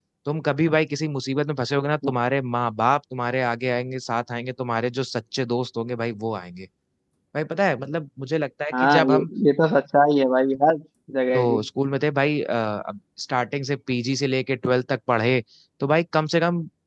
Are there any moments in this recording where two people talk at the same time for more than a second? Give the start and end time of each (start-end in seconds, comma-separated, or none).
none